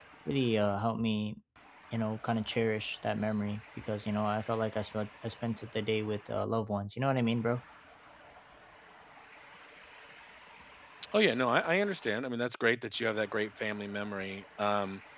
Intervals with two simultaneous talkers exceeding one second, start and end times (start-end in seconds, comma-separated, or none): none